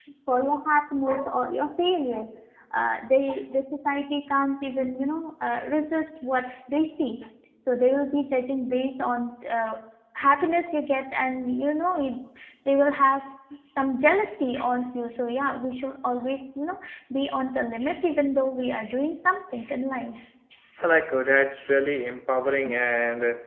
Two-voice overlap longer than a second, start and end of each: none

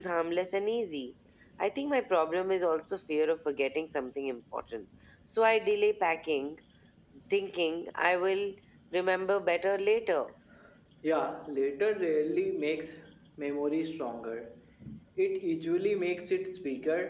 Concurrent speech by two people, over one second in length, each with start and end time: none

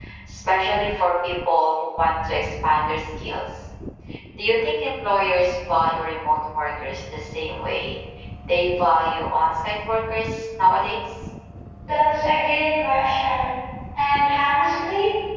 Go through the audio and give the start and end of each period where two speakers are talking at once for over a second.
none

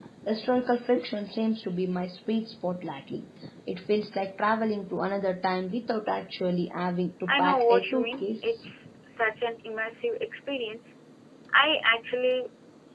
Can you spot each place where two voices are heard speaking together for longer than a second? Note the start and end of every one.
7.3-8.6

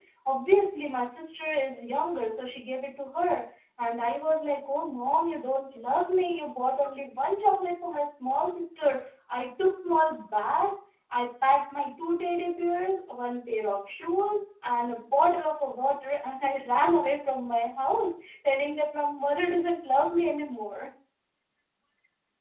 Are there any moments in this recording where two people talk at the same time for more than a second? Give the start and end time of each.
none

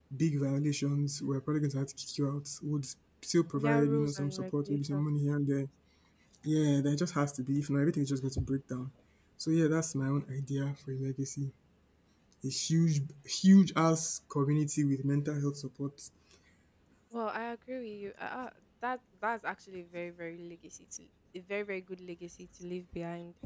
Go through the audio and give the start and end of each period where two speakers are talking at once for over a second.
3.5-5.0

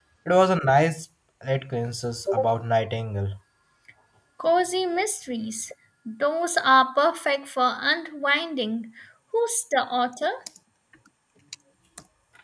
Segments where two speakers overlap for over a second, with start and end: none

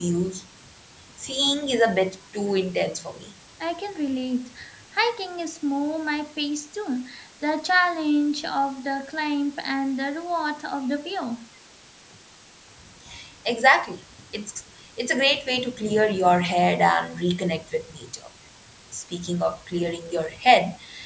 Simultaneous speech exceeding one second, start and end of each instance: none

